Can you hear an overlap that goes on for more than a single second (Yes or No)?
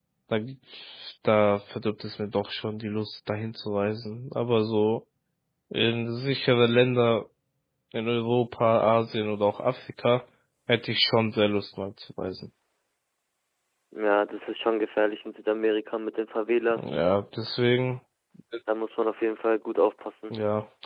No